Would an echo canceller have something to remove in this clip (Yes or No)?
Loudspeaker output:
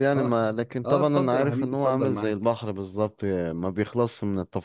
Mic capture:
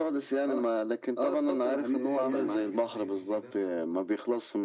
Yes